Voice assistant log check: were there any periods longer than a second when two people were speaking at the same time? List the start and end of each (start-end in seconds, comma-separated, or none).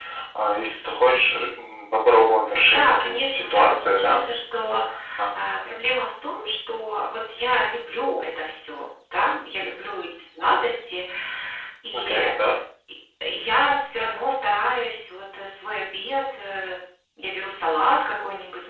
2.7-4.2